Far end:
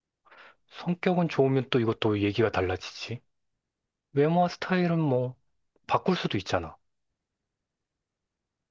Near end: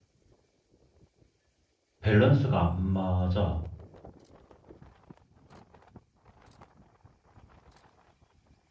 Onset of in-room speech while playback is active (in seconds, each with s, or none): 2.0 s